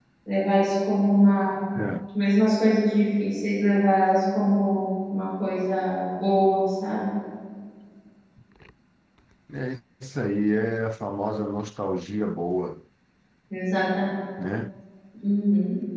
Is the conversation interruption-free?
Yes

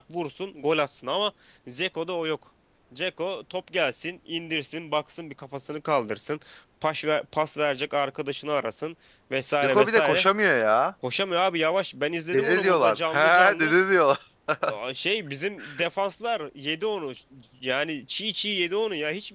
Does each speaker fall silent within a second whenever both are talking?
No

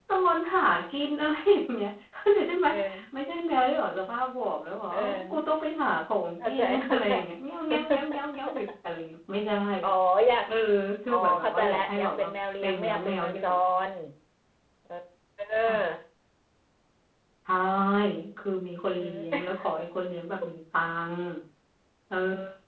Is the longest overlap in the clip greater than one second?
Yes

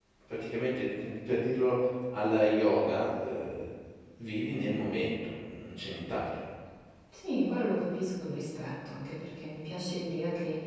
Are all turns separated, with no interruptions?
Yes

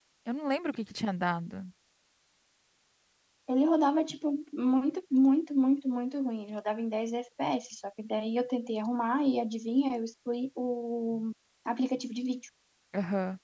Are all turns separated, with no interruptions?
Yes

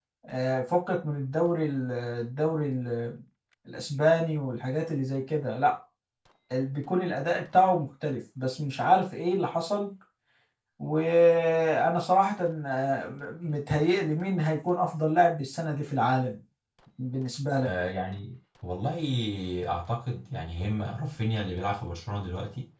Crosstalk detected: No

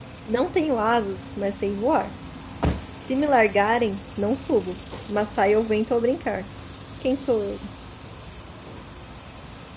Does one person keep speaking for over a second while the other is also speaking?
No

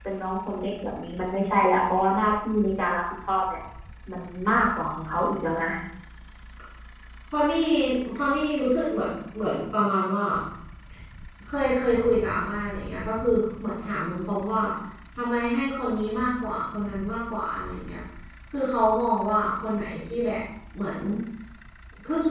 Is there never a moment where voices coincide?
Yes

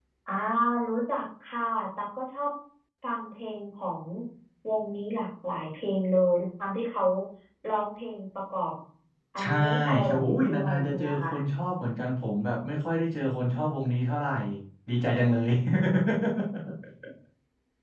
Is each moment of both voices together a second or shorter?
No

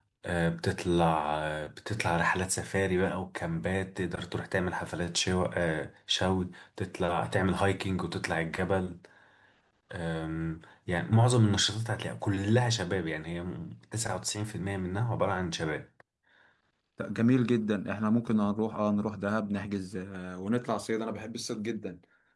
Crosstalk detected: No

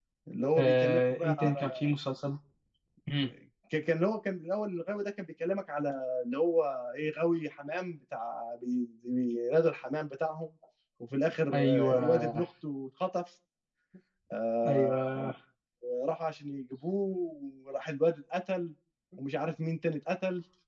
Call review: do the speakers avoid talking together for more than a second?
No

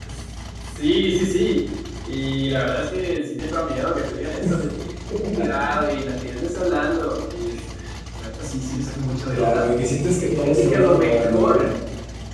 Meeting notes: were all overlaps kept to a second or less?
No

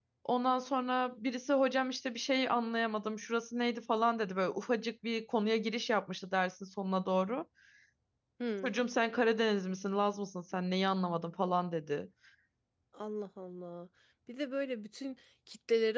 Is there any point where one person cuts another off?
No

